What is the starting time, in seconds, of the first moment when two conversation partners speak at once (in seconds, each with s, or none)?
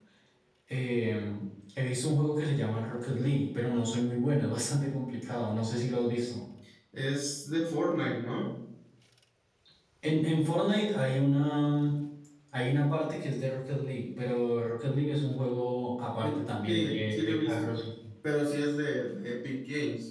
16.2 s